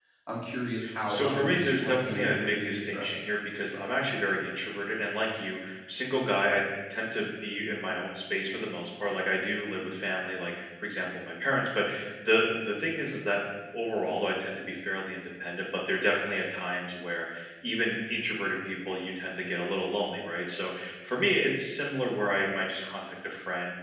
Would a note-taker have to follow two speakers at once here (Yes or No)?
Yes